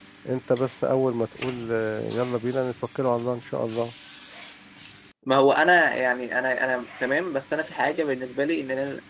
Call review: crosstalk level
none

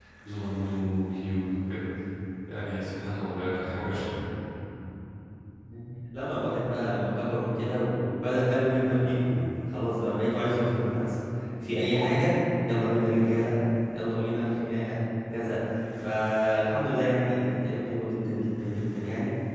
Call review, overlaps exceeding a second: none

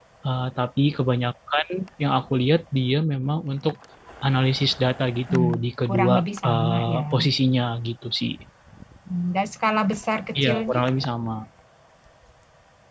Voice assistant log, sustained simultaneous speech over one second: present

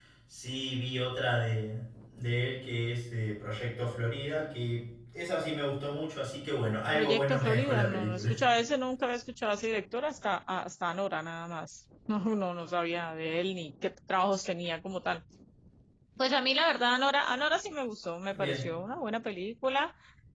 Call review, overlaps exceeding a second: present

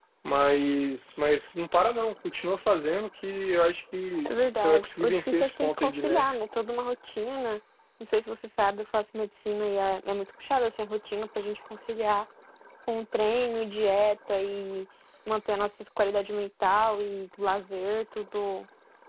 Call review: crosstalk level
present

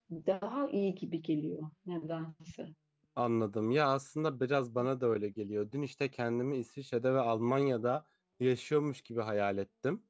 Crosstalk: none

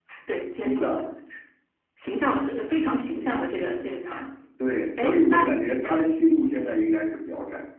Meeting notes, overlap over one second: none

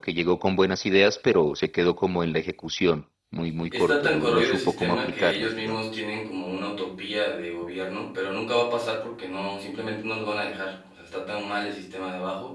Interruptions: present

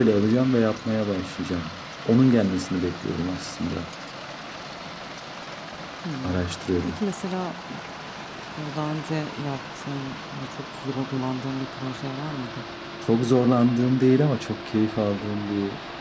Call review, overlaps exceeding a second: none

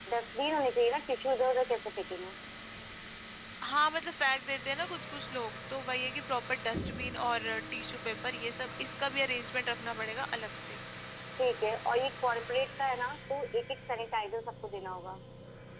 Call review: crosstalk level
none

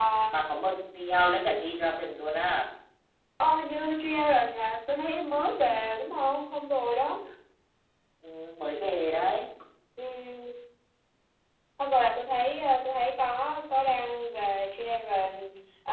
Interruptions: none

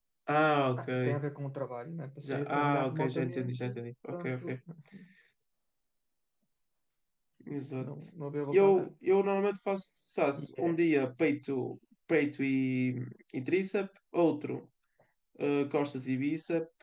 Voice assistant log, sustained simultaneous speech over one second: present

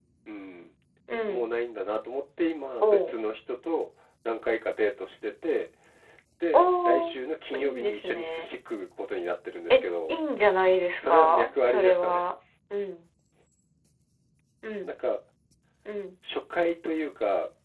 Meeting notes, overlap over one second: present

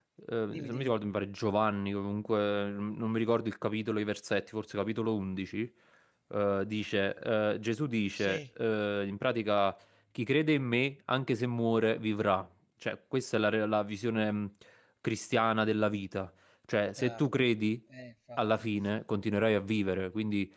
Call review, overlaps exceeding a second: none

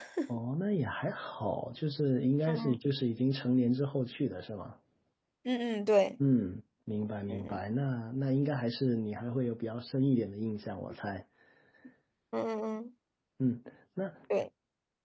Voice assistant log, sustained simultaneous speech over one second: none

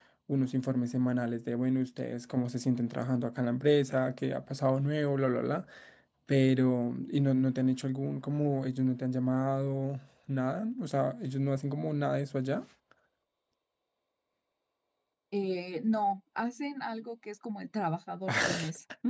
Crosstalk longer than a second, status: none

